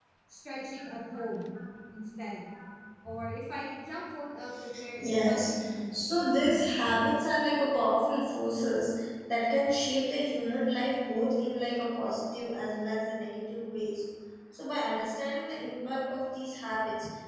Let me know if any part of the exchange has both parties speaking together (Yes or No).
Yes